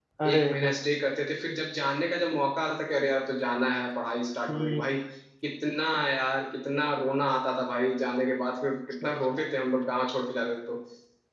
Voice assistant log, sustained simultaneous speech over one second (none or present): none